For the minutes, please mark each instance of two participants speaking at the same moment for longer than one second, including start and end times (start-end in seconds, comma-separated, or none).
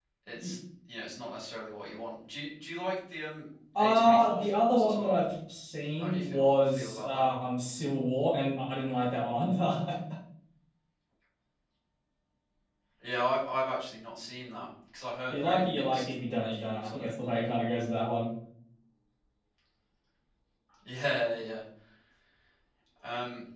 3.8-5.2, 6.0-7.3, 15.3-17.1